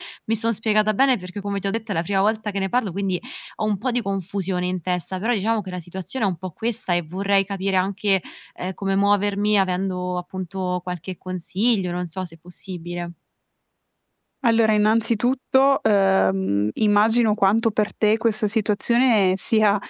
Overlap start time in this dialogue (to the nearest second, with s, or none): none